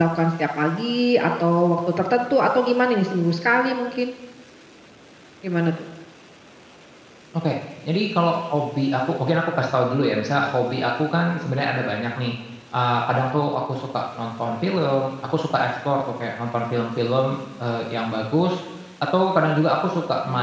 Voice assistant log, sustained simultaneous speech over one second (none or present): none